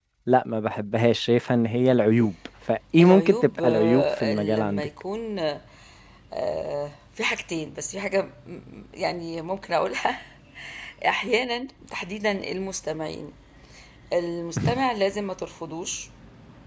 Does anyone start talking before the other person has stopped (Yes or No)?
Yes